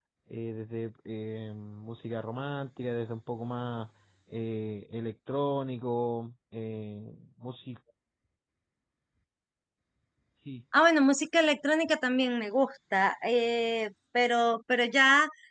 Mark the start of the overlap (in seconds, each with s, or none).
none